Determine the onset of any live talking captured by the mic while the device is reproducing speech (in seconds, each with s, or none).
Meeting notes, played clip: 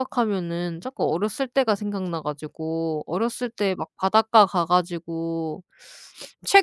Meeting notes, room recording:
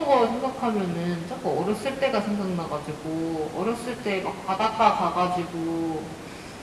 none